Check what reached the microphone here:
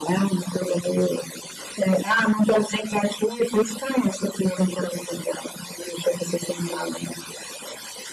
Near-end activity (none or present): none